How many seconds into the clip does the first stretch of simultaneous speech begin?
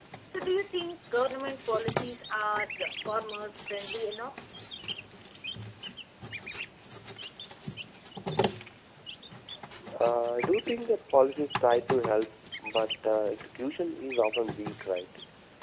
none

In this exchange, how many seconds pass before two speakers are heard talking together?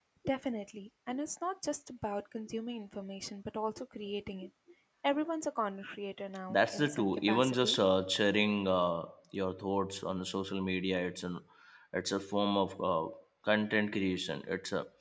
6.5 s

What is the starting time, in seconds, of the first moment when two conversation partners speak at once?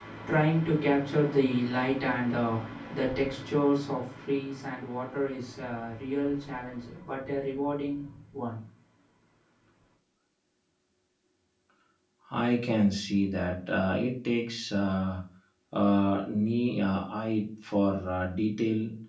none

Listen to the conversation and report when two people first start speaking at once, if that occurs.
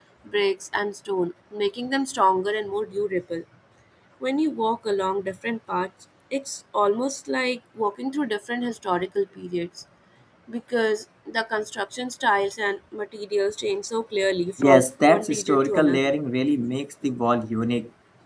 14.6 s

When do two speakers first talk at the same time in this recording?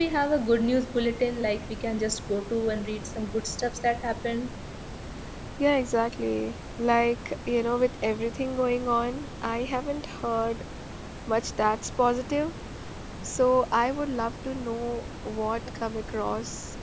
none

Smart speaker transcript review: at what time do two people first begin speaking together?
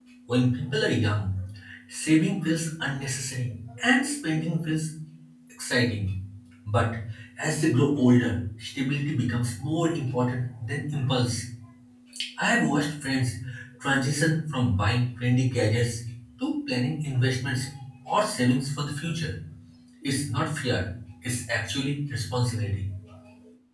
none

